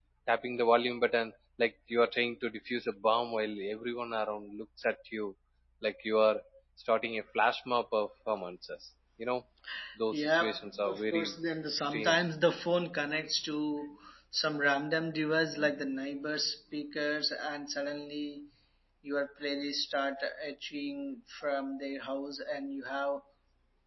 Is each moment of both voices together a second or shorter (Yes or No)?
No